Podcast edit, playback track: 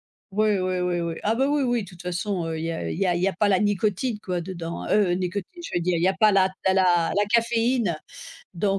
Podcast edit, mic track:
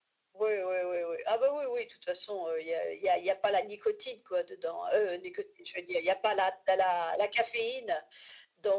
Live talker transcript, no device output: none

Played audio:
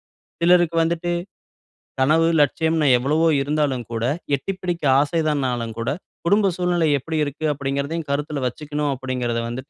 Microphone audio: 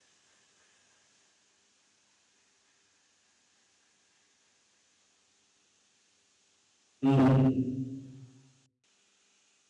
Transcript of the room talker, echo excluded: ம்.

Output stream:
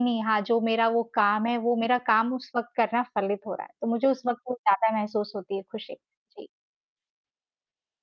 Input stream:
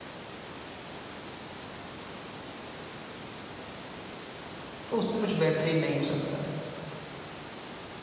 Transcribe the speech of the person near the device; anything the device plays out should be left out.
तो उससे कुछ बेहतरीन नहीं हो सकता।

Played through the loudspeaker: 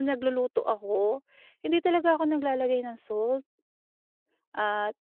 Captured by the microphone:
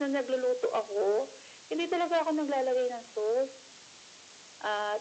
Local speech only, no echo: none

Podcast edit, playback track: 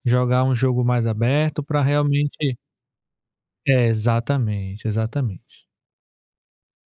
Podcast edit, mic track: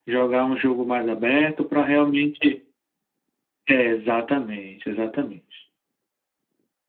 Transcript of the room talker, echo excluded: none

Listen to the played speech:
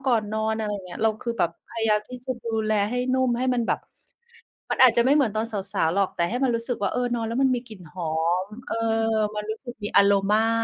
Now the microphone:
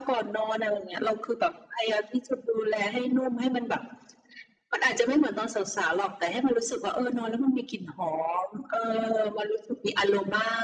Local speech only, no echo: none

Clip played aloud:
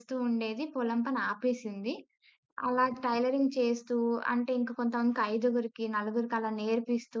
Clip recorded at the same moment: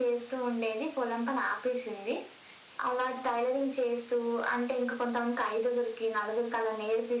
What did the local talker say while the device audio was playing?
none

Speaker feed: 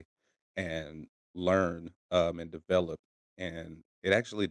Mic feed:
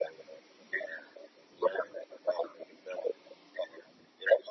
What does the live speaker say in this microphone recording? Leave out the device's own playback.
none

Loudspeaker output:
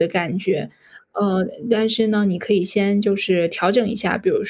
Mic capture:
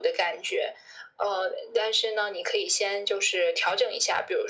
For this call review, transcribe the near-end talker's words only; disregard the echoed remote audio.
none

